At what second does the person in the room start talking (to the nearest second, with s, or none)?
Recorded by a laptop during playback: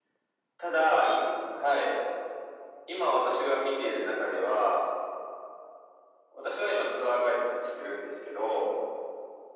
none